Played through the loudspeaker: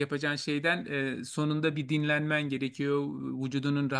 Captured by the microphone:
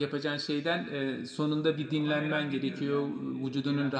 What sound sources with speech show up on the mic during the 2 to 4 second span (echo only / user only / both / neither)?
both